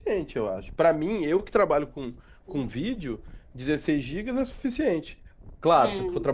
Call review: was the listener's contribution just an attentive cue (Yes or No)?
Yes